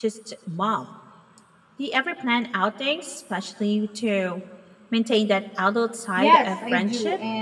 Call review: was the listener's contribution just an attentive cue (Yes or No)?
No